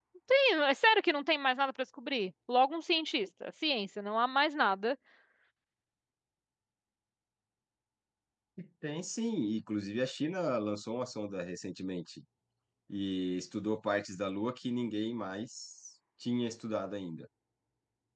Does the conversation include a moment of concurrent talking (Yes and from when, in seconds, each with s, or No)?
No